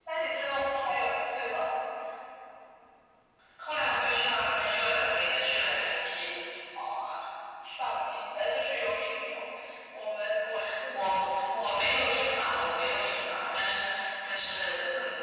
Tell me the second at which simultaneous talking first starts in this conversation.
none

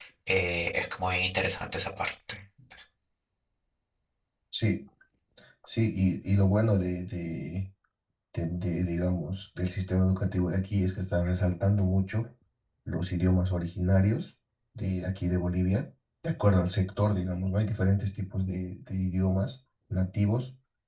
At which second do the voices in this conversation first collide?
none

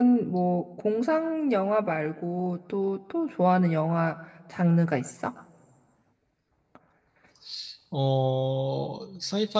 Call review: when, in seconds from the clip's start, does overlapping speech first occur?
none

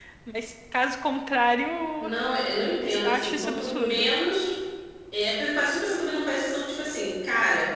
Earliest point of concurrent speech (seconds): 2.8 s

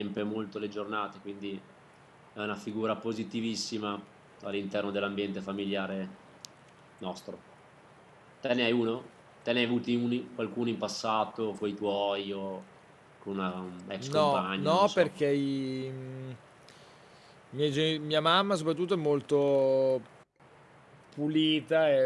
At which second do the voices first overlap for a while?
14.0 s

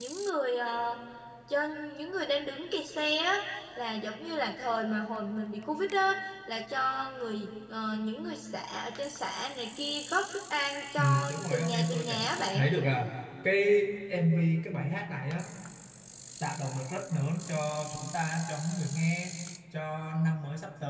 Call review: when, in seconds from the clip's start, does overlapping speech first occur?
11.0 s

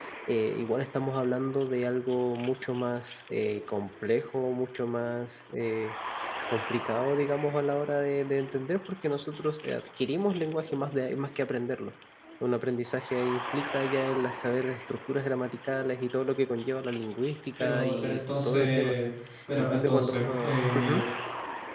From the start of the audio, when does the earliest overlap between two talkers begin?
17.6 s

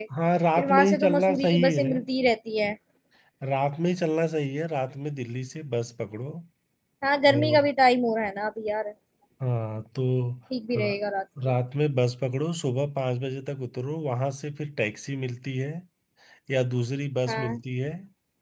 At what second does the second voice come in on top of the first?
0.6 s

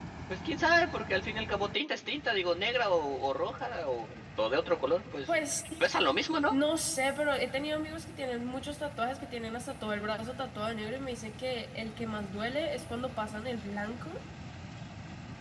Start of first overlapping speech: none

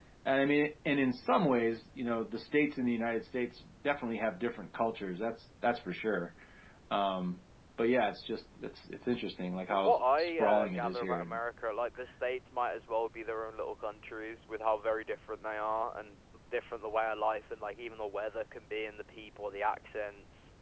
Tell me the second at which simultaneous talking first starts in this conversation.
9.7 s

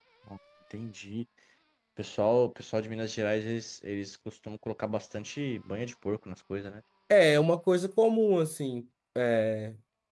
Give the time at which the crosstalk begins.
none

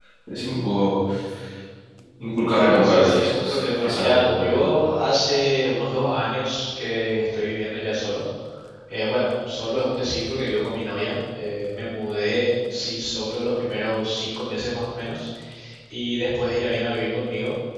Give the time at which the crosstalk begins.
2.5 s

